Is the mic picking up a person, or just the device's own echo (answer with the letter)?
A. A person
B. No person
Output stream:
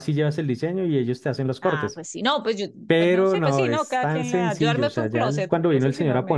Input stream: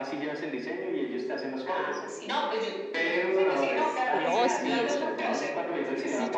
A